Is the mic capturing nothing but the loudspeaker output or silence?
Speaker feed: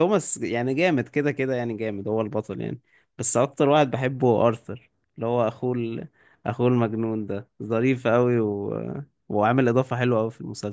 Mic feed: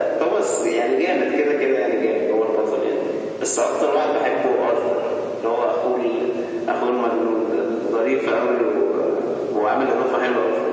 Yes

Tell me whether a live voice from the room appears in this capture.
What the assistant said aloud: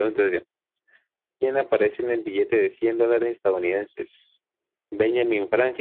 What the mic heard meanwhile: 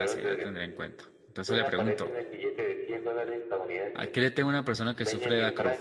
Yes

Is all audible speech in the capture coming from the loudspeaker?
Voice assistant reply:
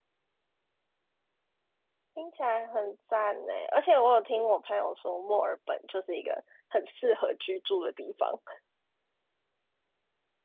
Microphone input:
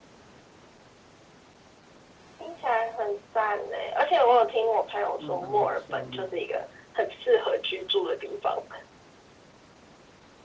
No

